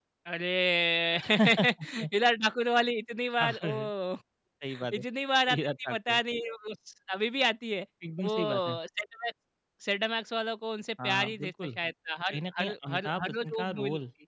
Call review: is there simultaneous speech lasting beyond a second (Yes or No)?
Yes